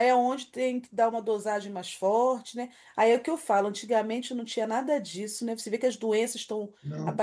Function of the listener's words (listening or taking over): listening